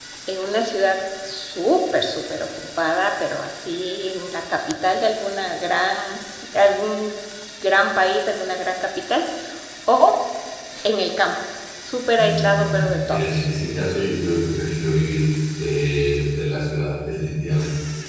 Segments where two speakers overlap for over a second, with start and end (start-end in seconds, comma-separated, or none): 12.2-13.5